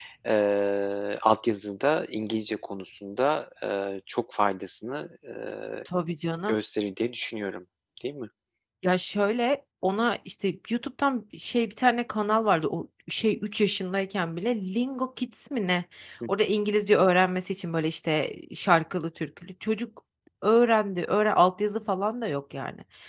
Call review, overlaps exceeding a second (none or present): none